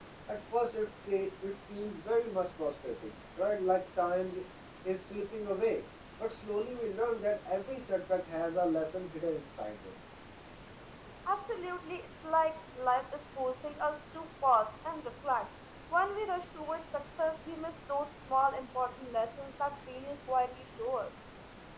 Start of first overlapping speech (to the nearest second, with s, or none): none